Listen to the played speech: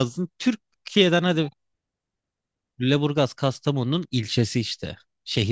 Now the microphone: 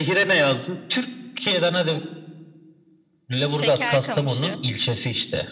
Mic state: both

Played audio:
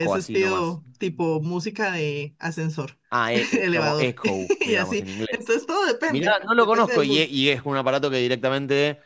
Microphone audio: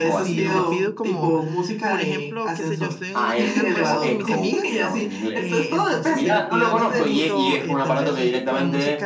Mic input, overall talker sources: both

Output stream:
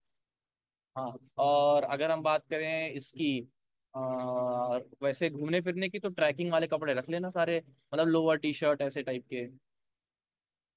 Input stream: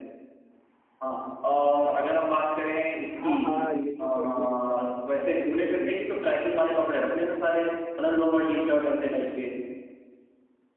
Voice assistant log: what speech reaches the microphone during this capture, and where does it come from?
both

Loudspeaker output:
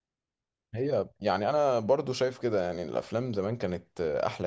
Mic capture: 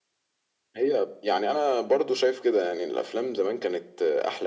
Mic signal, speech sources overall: echo only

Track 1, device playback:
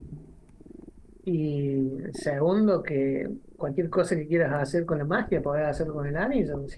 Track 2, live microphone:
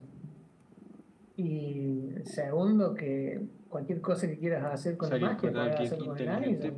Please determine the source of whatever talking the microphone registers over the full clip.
both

